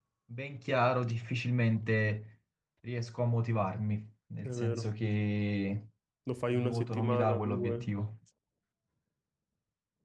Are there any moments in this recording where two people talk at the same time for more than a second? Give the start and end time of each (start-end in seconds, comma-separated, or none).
6.5-7.9